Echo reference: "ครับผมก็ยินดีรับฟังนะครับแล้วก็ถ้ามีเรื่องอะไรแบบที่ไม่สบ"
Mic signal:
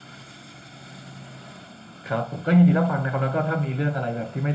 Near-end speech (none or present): none